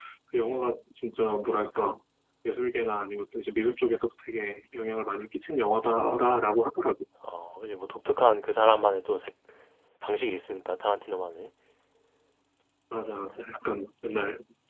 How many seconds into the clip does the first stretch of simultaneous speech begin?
none

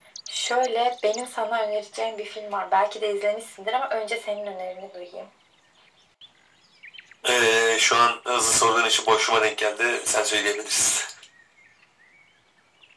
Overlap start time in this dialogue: none

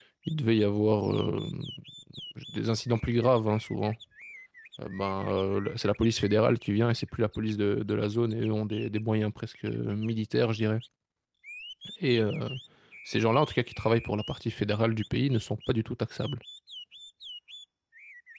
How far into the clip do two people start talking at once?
none

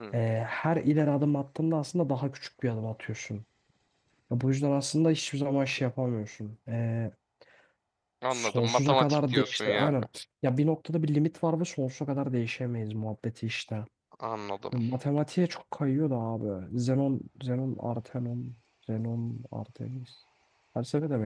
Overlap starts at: 8.3 s

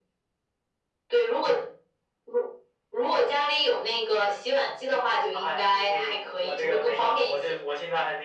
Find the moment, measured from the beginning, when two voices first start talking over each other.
5.3 s

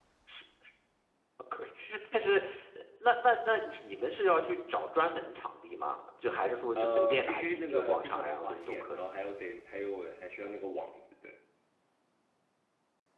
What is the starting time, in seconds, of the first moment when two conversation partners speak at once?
6.8 s

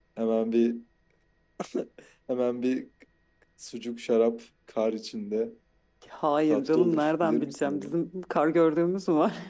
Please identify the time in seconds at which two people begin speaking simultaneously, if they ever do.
6.5 s

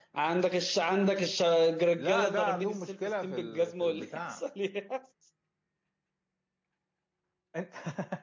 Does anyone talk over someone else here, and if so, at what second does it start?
2.0 s

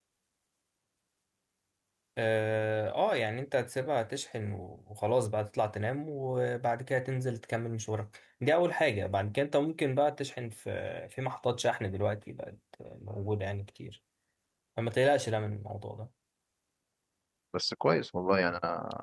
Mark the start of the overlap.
none

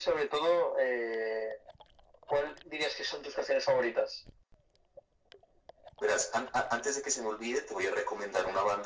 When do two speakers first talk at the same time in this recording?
none

